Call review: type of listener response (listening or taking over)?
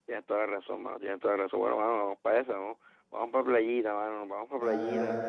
taking over